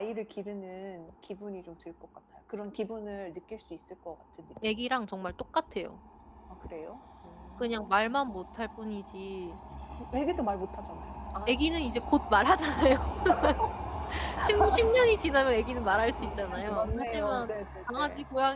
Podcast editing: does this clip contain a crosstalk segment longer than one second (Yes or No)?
Yes